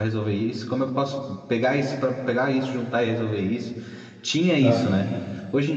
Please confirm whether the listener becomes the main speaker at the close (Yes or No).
No